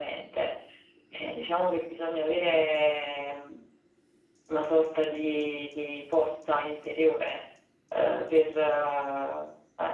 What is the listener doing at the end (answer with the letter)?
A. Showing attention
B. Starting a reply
A